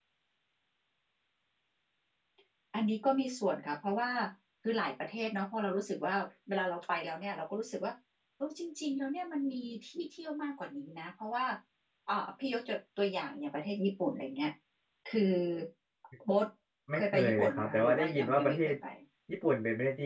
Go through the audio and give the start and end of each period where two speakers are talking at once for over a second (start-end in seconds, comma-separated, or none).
16.9-18.7